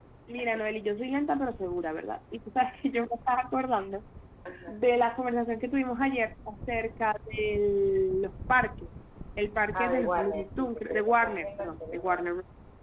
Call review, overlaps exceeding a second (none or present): present